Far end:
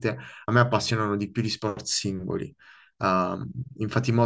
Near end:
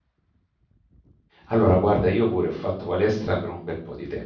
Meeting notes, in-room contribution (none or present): present